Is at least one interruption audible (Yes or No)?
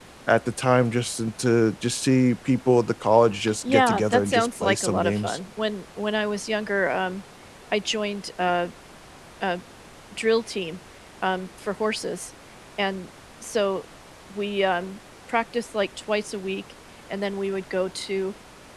Yes